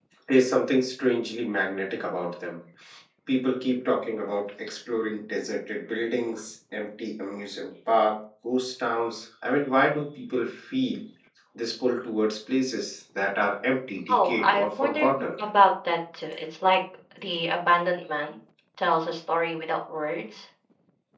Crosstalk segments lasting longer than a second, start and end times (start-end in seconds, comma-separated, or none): 14.1-15.4